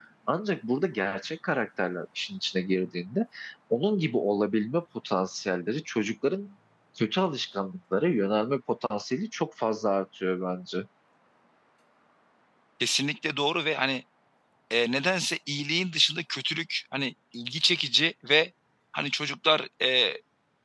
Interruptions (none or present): none